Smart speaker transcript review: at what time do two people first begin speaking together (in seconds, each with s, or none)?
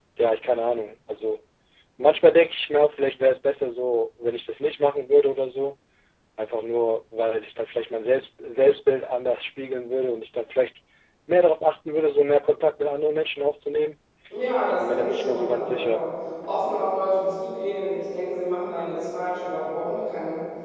14.8 s